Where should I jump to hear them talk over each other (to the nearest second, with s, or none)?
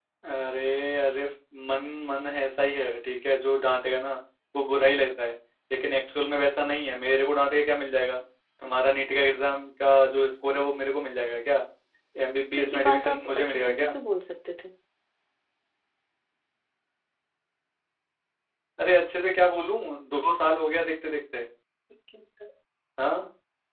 13 s